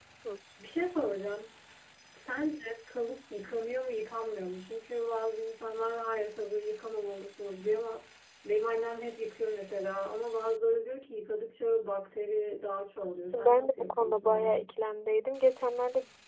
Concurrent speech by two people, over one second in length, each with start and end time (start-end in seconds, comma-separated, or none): 13.3-14.6